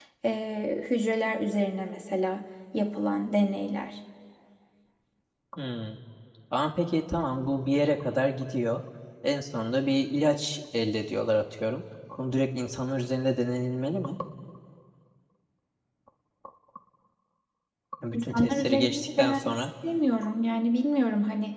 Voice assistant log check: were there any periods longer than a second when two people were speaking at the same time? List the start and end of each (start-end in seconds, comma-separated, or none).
18.1-19.6